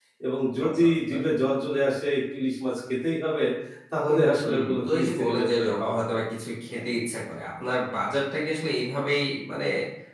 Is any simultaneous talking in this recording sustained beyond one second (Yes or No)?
Yes